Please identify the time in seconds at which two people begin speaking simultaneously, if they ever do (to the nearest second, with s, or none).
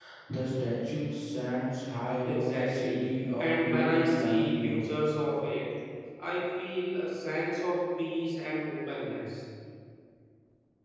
2 s